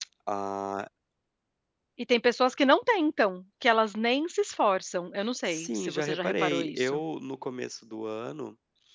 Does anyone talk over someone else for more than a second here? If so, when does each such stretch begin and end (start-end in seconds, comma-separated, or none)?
5.4-7.0